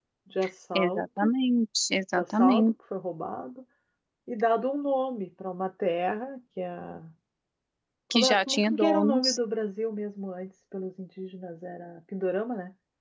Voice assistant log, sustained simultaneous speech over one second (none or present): present